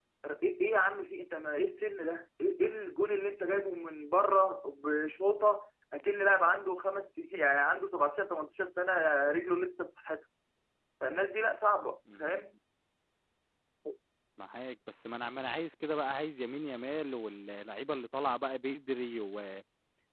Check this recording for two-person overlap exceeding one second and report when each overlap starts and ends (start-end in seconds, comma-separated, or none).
none